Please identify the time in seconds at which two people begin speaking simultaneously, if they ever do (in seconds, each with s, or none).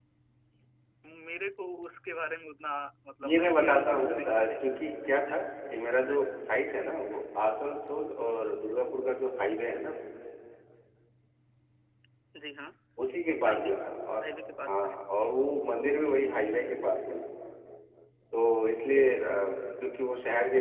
3.2 s